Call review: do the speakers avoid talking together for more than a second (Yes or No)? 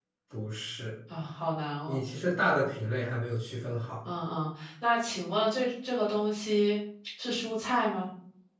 Yes